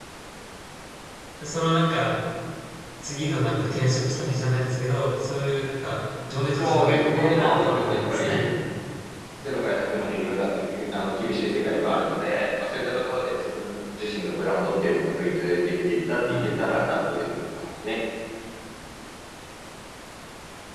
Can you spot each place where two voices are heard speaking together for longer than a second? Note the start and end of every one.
6.6-8.4

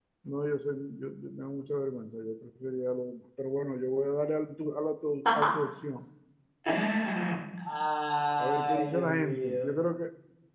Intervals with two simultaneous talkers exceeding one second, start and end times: 8.4-9.7

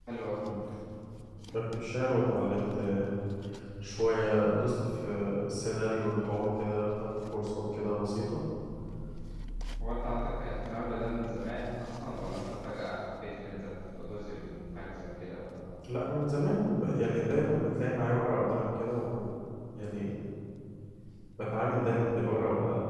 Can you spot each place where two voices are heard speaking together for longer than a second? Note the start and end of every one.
none

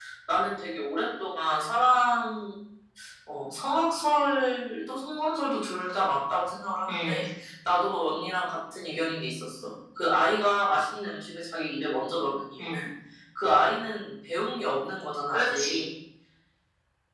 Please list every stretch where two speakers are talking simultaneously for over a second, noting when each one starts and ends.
none

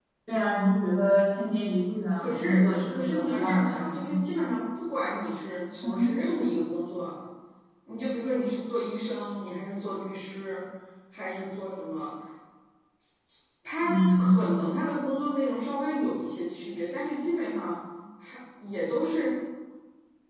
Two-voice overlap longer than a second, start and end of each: 2.2-4.0

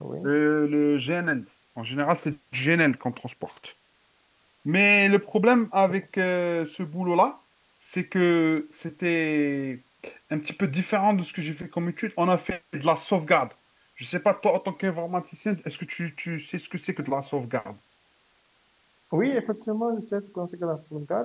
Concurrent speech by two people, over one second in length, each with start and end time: none

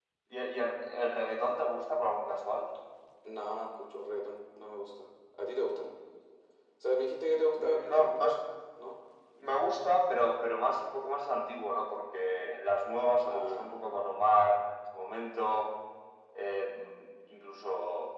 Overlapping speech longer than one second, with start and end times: none

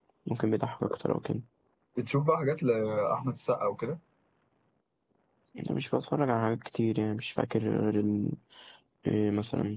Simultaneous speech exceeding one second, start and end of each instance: none

